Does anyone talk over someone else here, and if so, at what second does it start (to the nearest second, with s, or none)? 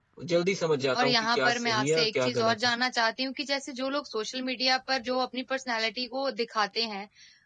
1 s